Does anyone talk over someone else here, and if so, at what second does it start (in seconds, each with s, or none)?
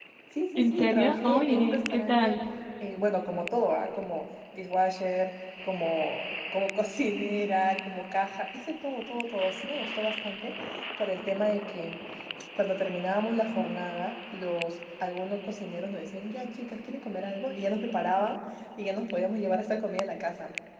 0.6 s